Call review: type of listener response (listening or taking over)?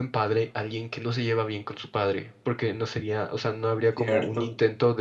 listening